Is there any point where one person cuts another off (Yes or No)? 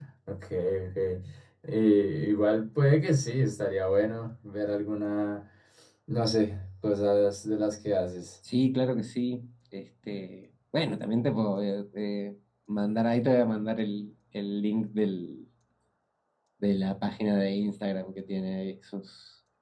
No